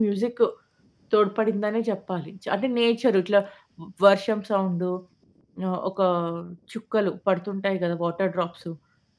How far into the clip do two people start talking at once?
none

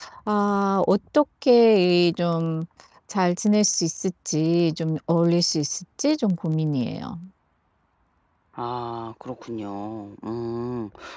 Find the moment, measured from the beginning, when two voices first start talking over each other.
none

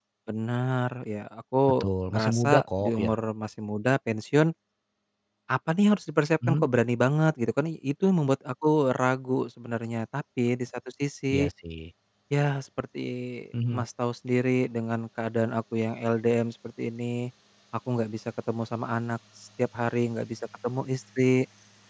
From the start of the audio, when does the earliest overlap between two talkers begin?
2 s

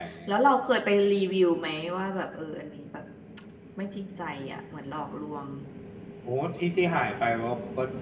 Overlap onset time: none

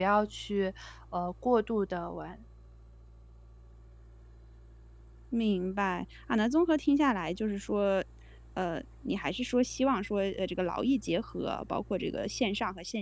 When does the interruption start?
none

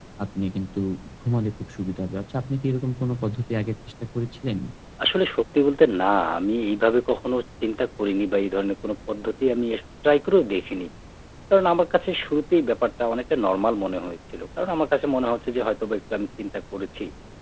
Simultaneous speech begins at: none

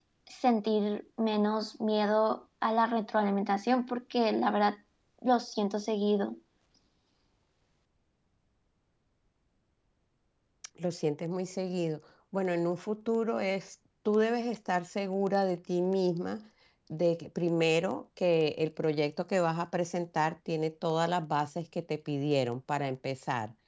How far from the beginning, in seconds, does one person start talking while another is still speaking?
none

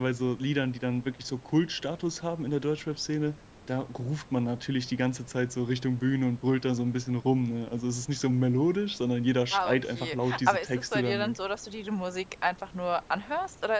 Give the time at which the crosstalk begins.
10 s

